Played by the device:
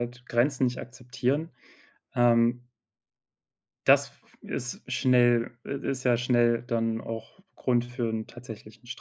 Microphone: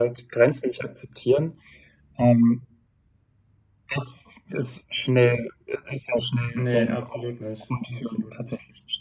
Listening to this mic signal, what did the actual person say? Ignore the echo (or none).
Ne, absolut nicht. Absolut nicht.